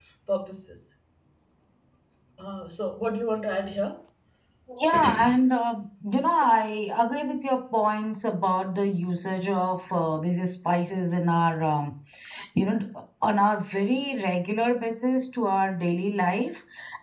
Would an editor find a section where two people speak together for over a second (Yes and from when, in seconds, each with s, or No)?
No